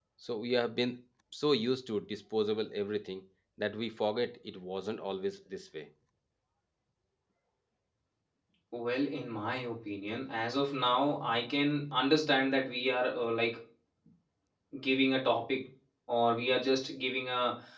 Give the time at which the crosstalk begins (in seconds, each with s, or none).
none